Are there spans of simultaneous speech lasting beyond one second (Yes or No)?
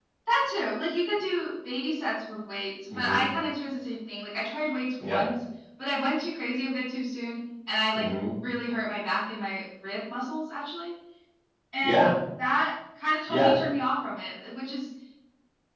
No